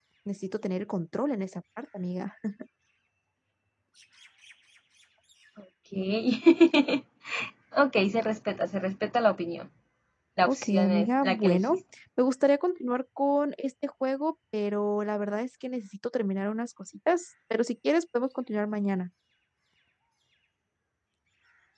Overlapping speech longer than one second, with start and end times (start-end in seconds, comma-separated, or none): 10.5-11.8